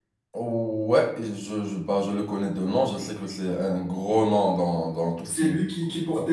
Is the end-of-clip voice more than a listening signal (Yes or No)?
Yes